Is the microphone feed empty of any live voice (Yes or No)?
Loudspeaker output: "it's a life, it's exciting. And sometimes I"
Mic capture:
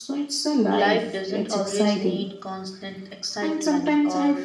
No